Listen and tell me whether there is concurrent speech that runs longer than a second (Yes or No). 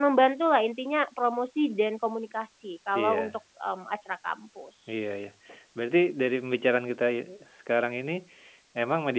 No